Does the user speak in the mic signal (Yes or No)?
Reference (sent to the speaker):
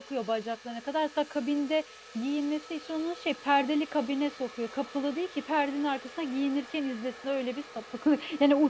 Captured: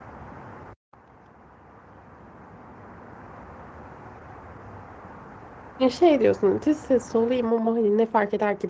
Yes